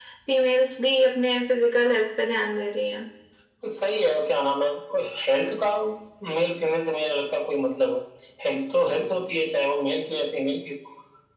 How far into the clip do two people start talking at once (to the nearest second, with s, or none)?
none